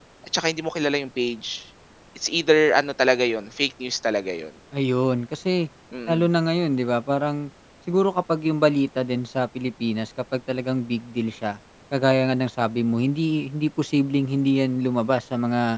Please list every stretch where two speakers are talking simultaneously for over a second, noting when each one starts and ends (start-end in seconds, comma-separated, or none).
none